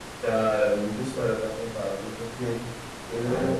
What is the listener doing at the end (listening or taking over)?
listening